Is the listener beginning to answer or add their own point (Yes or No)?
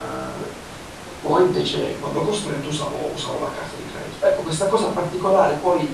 No